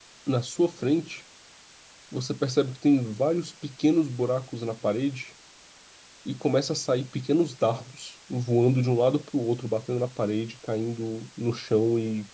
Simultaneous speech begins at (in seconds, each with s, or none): none